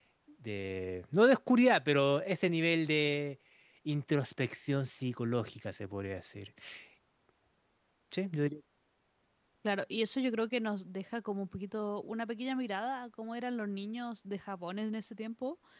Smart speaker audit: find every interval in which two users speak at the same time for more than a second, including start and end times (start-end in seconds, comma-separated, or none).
none